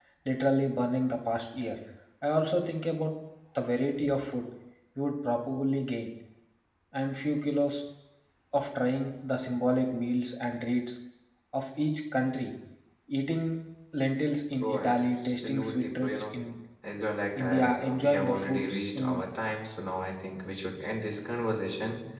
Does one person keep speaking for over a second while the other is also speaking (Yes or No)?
Yes